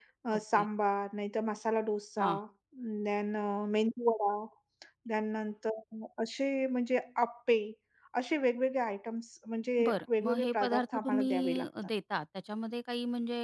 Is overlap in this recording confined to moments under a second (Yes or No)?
No